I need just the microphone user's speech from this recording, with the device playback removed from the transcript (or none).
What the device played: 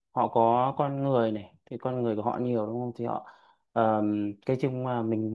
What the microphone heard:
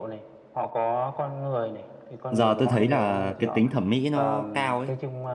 Giờ tôi thấy là cái tính thẩm mỹ nó cao ấy.